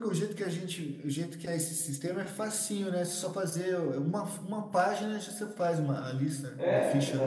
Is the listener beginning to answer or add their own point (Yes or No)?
Yes